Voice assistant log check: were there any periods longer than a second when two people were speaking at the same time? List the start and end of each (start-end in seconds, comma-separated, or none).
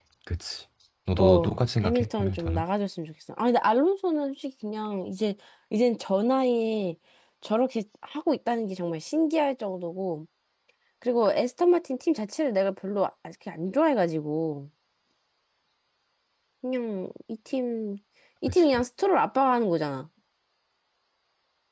1.2-2.6